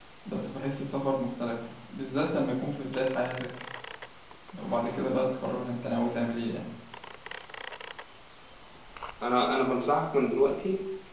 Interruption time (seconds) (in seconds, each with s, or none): none